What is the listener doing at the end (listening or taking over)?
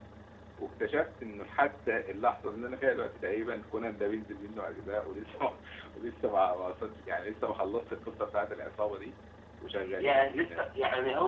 taking over